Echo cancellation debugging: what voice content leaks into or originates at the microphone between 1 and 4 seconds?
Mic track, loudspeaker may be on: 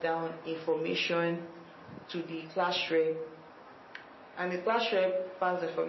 echo only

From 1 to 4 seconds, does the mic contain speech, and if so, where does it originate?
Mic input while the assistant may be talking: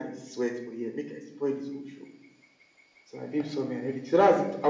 echo only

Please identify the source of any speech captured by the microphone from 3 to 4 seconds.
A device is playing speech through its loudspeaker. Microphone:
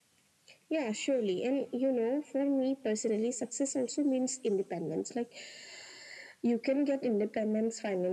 echo only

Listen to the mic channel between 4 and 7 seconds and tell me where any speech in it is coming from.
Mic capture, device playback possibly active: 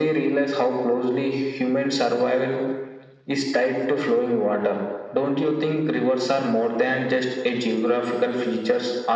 echo only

